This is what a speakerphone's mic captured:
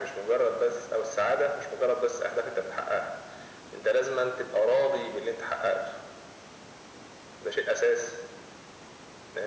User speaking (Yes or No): No